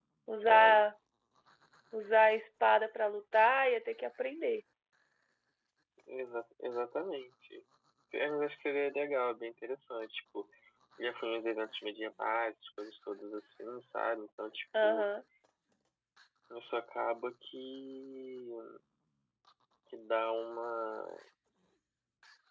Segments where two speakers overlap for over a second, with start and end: none

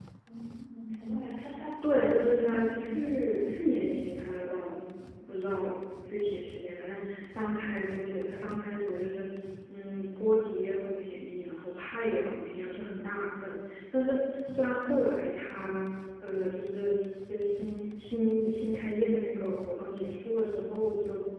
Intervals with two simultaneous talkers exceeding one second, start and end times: 1.8-3.5

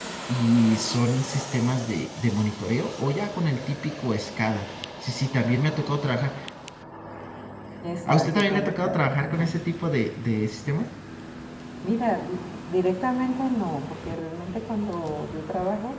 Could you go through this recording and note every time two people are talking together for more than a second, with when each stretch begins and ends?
8.1-9.6

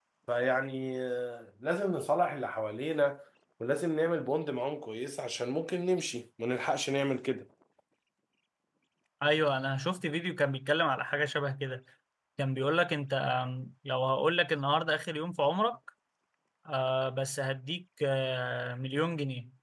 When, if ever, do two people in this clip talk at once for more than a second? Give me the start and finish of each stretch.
none

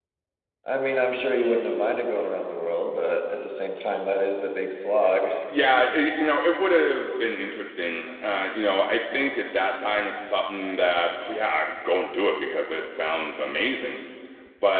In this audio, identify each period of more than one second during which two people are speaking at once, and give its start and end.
none

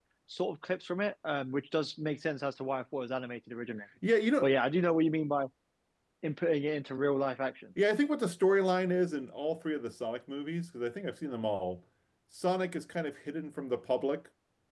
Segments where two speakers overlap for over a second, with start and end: none

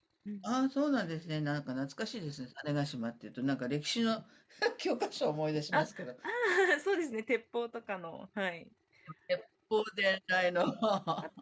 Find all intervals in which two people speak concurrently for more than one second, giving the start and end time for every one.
none

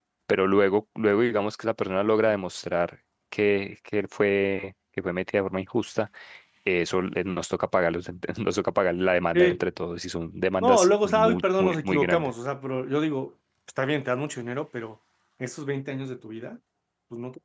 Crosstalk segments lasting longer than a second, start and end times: 10.6-12.3

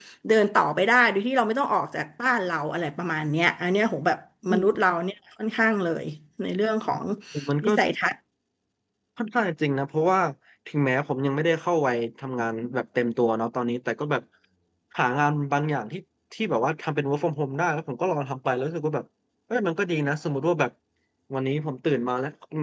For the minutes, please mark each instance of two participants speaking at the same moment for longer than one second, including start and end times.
none

